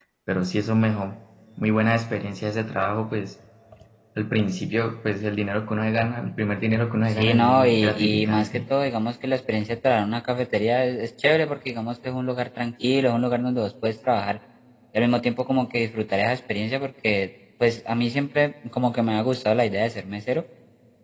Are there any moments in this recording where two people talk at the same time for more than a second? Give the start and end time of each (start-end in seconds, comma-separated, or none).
7.1-8.6